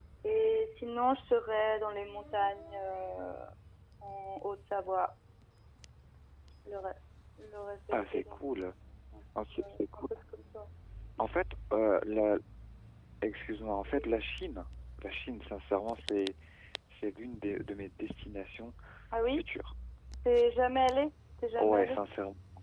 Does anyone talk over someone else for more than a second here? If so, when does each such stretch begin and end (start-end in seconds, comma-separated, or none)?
none